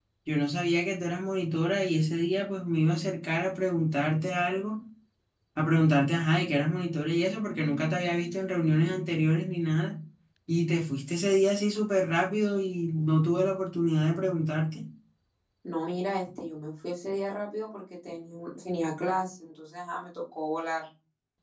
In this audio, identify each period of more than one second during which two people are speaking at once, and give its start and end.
none

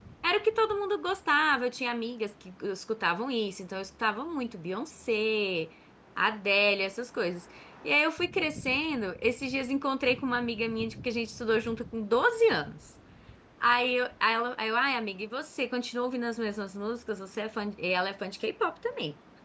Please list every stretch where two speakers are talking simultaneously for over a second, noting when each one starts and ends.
none

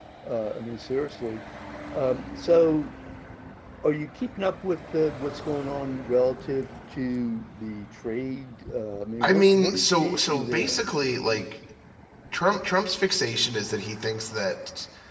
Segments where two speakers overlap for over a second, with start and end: 9.2-10.8

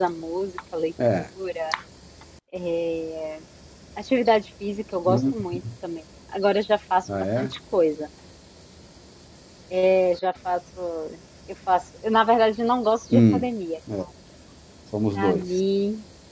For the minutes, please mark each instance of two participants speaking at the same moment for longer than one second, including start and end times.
none

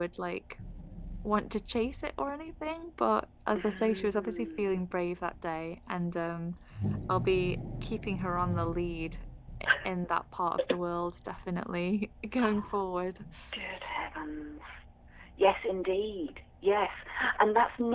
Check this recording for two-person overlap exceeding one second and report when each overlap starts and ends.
3.6-4.8

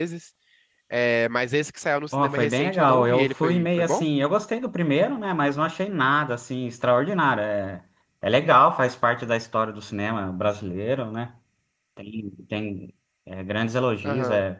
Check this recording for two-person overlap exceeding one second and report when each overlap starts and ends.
2.1-4.1

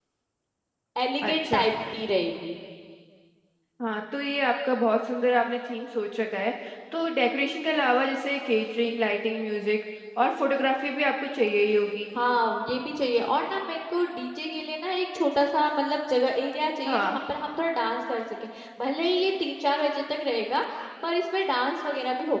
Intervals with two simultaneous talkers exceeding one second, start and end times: none

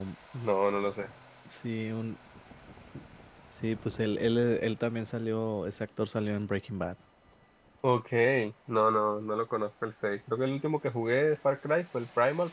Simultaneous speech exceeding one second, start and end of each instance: none

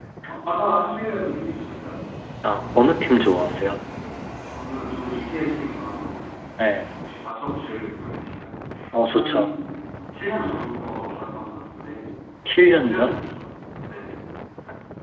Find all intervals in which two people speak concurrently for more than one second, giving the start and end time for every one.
none

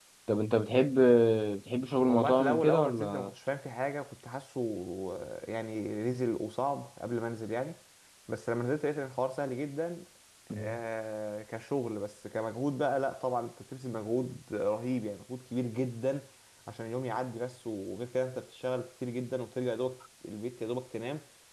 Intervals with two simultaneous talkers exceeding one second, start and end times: 2.1-3.3

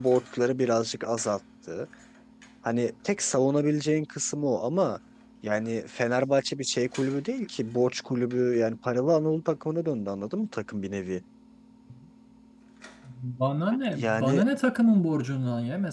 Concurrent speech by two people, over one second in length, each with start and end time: none

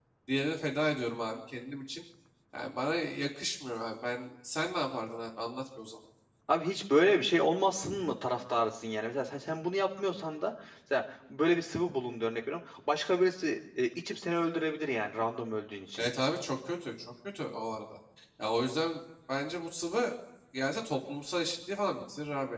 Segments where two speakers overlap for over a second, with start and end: none

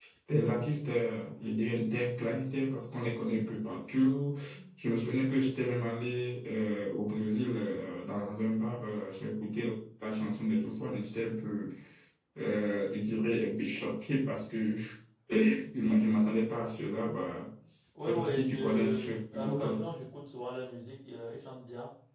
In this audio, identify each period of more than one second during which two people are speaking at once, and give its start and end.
18.0-19.6

